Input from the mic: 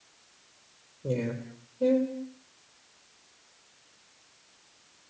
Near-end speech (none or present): present